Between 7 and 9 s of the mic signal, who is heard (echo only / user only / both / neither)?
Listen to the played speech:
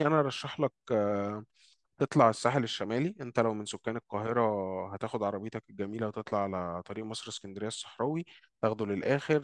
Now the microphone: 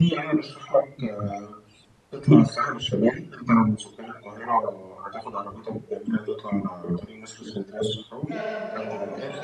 both